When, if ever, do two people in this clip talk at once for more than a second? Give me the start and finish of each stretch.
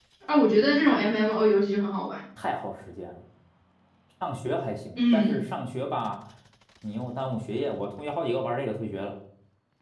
none

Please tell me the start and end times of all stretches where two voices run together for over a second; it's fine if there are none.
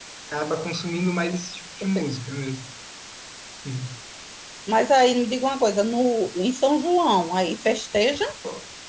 none

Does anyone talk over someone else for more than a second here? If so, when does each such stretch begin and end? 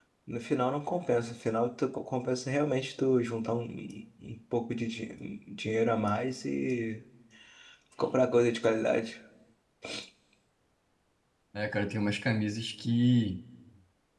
none

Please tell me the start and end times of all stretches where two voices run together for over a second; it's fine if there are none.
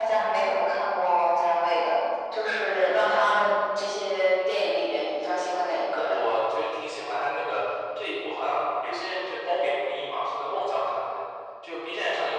none

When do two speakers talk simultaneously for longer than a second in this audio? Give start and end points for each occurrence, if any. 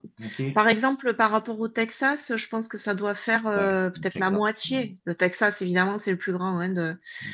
3.6-4.9

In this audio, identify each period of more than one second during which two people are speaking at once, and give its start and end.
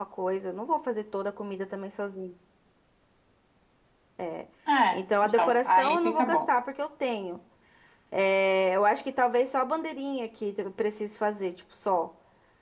4.9-6.4

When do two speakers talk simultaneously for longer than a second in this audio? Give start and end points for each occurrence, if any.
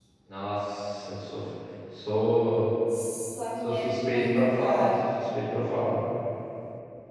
3.7-4.9

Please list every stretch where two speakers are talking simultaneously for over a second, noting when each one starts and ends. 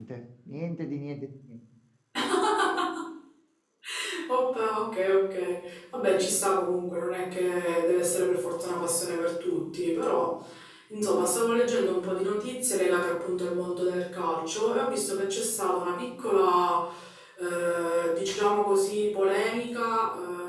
none

